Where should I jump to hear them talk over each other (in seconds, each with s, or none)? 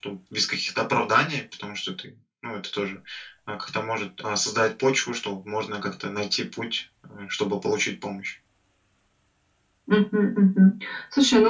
none